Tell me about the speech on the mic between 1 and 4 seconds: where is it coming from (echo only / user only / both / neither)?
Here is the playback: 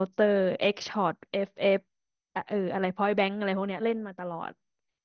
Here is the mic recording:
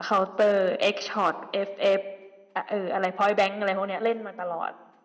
echo only